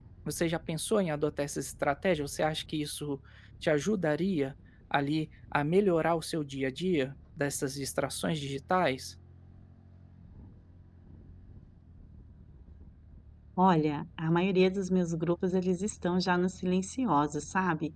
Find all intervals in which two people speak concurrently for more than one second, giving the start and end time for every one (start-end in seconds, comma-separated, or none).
none